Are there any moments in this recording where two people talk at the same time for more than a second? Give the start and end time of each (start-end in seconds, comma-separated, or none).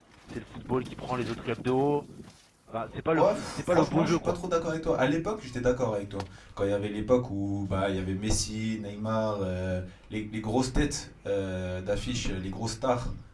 3.1-4.3